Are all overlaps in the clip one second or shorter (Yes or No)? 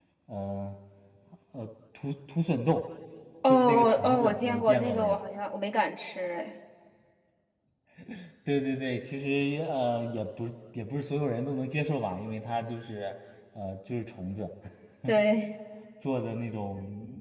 No